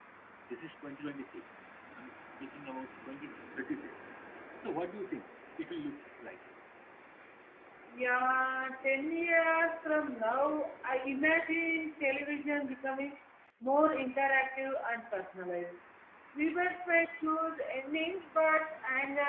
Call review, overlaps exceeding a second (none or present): none